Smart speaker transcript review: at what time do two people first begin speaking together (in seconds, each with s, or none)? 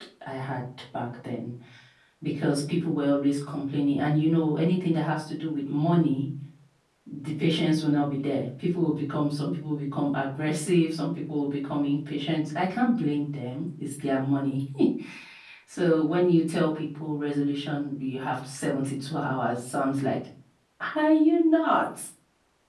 none